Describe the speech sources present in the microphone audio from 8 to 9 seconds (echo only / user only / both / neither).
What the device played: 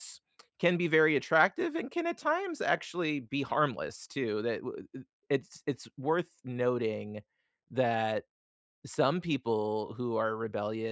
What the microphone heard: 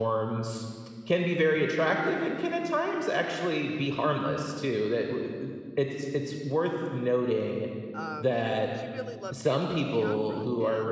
both